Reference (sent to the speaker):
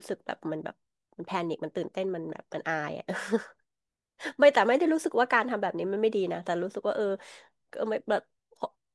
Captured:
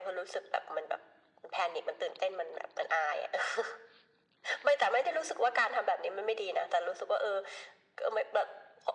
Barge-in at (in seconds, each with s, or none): none